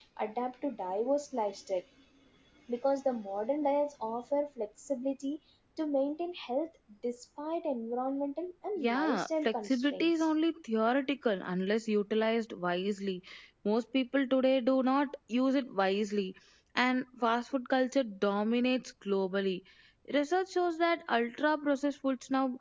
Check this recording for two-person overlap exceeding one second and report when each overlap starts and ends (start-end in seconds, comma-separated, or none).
8.8-10.3